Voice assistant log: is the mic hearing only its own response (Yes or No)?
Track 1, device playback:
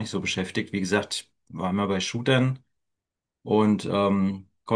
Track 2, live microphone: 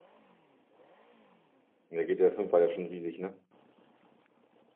No